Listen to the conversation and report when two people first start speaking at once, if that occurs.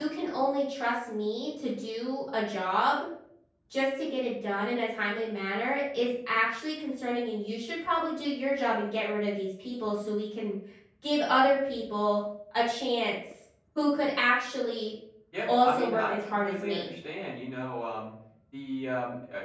15 s

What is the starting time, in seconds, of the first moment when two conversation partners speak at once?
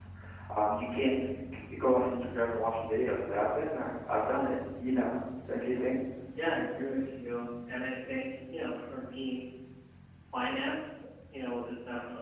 none

